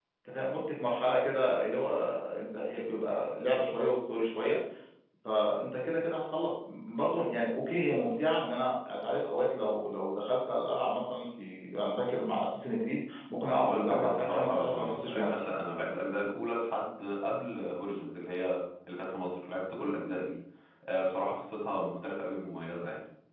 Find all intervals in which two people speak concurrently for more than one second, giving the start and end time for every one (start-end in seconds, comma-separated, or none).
13.6-15.4